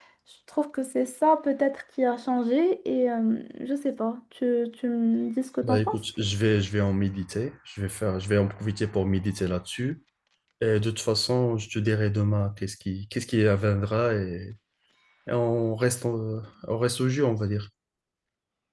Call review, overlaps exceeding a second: none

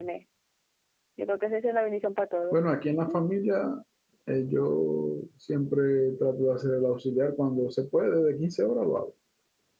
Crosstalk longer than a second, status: none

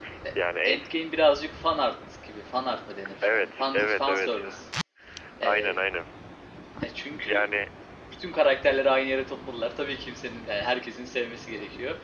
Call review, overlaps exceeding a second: present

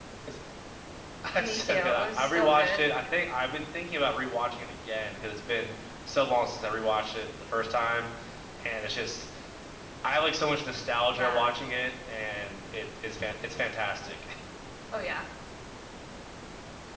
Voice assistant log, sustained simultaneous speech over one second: present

